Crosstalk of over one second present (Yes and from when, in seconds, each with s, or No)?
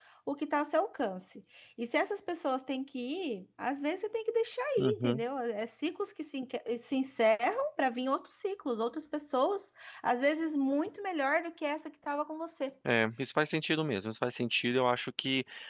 No